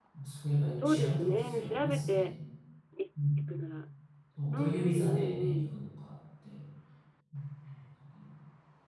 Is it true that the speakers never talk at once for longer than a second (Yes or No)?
No